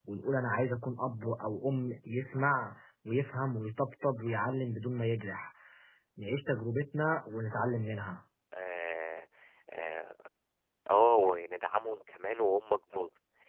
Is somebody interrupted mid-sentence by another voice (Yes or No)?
No